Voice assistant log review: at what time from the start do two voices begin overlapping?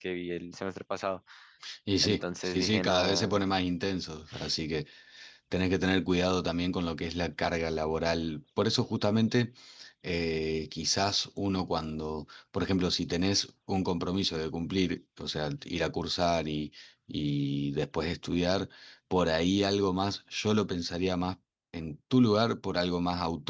2.0 s

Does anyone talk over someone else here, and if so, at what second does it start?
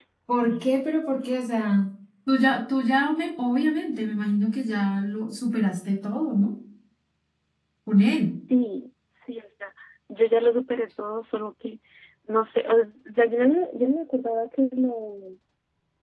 none

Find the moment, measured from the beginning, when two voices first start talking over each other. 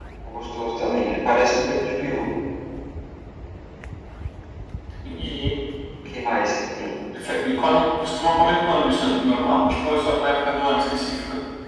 none

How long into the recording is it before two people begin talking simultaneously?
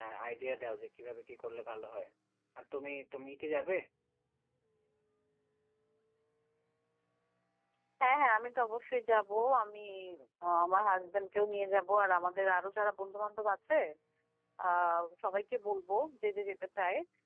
none

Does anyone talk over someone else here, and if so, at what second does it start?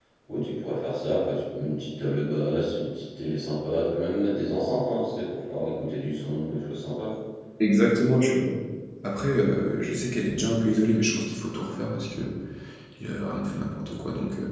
none

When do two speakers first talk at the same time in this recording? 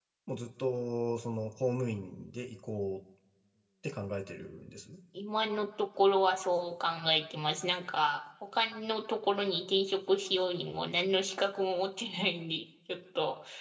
none

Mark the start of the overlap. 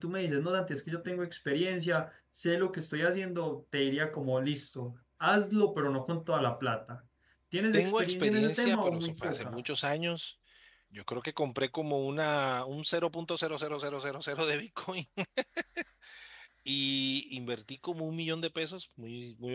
7.7 s

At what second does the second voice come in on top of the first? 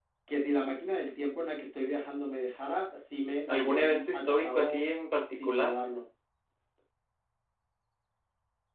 3.5 s

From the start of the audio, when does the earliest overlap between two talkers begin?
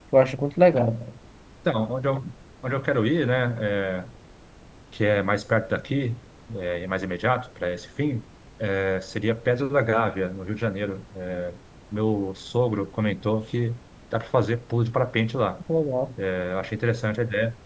none

